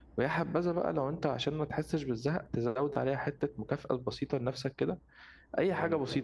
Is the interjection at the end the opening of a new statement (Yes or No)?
No